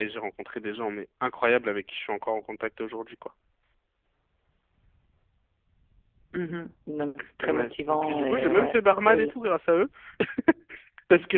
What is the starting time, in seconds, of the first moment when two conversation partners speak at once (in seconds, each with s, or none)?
7.4 s